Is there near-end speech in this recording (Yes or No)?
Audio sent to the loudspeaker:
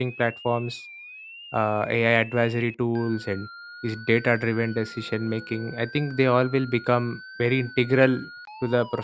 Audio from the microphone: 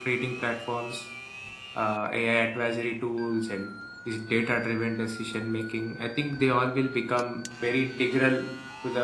No